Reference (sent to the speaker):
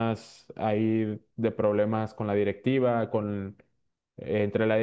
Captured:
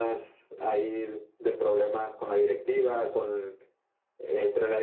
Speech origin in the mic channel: echo only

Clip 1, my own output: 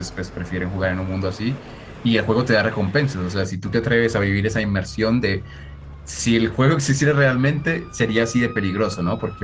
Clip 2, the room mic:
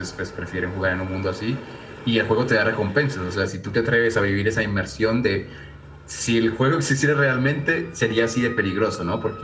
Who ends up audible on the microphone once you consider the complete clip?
echo only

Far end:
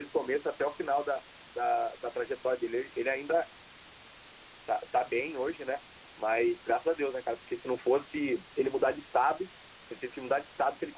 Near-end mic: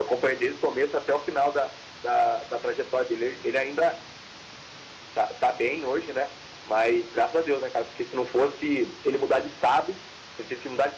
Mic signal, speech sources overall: echo only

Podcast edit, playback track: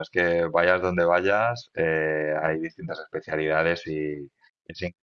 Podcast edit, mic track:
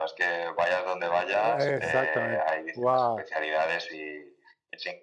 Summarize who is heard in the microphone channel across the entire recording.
both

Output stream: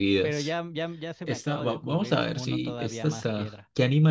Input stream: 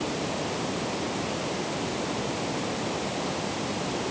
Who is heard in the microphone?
neither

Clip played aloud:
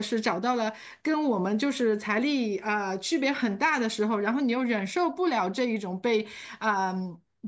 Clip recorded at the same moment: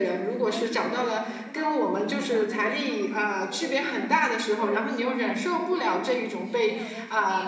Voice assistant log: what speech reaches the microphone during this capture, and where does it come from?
both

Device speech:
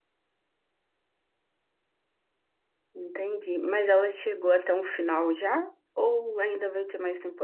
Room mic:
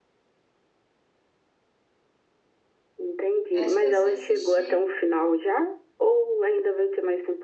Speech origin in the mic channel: both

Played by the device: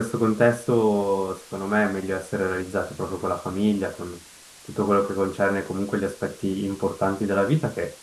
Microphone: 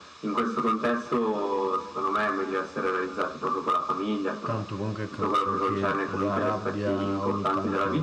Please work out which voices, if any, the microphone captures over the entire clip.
both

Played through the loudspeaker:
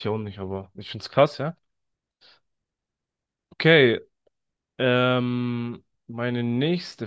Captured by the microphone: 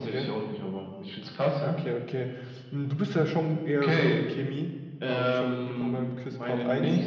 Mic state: both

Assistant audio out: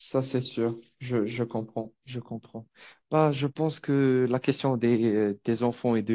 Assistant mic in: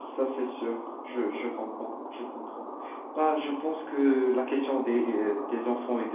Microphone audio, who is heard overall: echo only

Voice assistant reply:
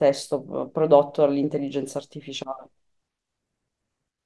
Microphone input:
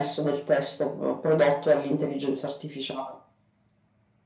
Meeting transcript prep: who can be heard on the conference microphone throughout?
echo only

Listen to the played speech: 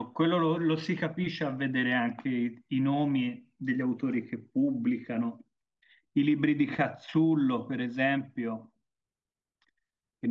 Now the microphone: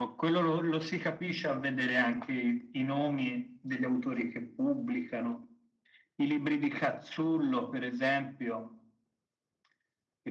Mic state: echo only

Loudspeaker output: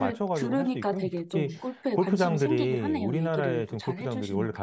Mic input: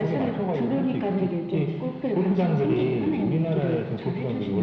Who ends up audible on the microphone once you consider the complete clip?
echo only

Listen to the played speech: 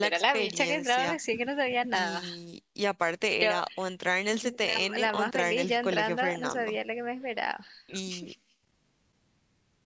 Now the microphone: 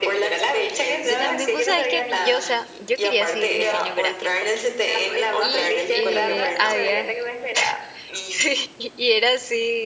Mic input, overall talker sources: both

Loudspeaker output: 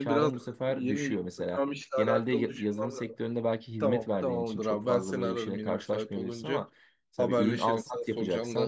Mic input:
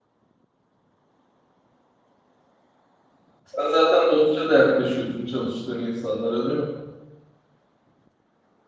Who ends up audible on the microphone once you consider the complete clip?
user only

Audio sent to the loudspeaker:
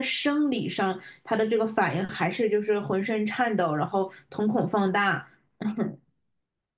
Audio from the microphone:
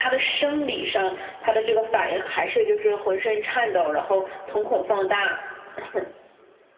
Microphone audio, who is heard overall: echo only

